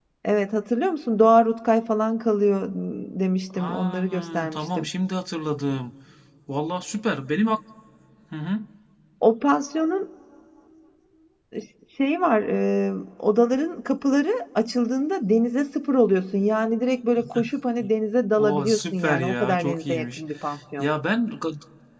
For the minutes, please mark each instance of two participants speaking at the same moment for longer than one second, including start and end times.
3.5-4.9, 18.4-20.2

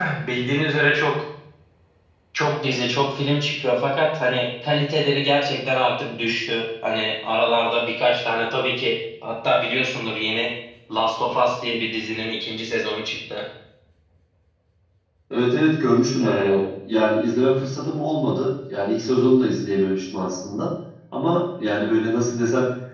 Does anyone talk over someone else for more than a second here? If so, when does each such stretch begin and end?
none

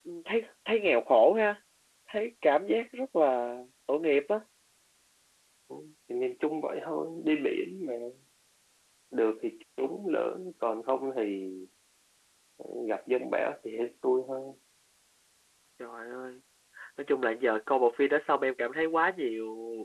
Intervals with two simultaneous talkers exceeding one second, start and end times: none

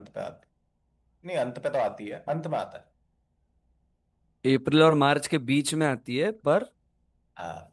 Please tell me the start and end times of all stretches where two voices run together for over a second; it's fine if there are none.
none

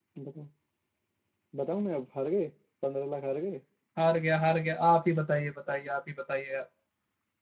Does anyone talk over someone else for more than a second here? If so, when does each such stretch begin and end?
none

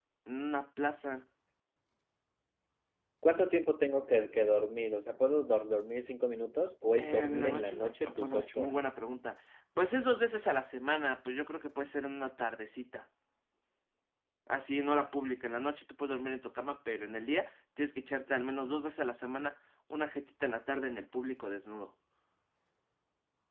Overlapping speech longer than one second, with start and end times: 7.0-8.7

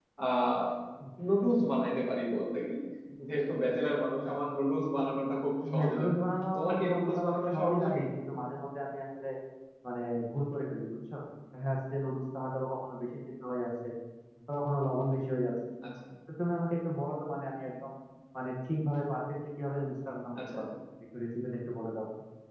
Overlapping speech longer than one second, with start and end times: 6.5-8.0

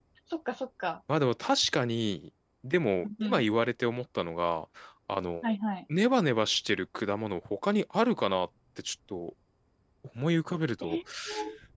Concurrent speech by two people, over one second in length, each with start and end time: none

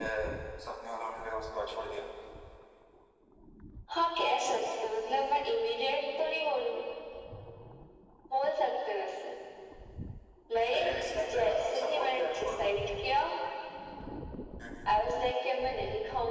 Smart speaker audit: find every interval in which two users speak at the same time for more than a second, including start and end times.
11.3-12.7

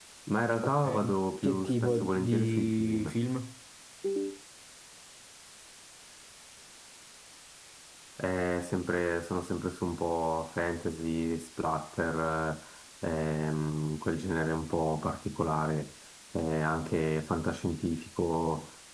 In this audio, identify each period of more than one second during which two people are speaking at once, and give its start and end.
1.4-3.1

